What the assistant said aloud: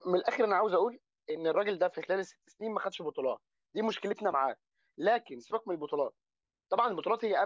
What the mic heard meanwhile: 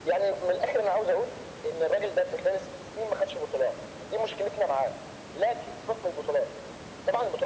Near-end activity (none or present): none